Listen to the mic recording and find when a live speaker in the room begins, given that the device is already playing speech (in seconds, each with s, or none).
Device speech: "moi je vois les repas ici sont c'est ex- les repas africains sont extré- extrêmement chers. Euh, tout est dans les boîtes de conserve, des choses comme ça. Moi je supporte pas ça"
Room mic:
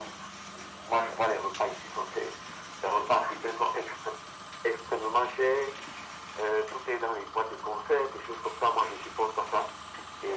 none